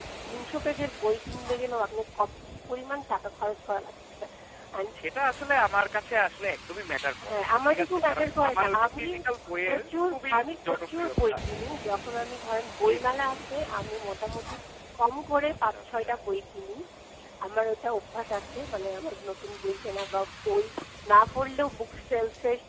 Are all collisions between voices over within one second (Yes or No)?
No